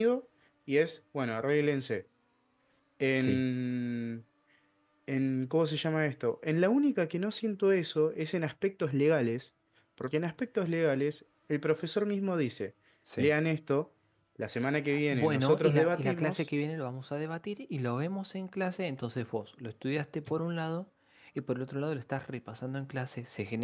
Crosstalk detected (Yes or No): Yes